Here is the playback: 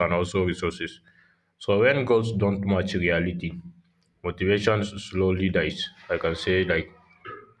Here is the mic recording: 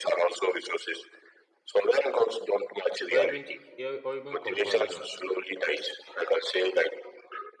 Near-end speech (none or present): present